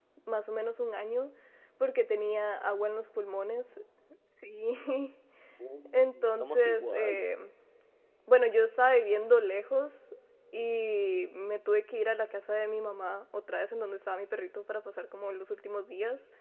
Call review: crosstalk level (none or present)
present